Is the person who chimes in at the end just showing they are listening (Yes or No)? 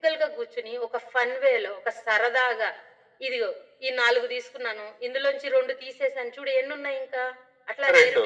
Yes